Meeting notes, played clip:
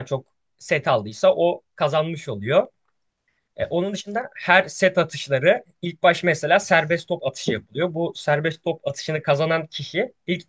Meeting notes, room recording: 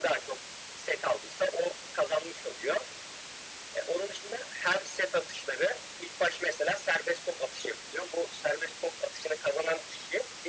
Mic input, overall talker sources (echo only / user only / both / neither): echo only